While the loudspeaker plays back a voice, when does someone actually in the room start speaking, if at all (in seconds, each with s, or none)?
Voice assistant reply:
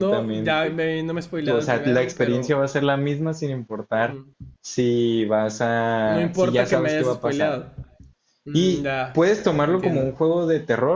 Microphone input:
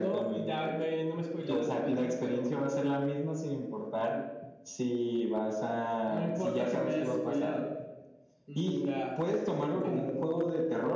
none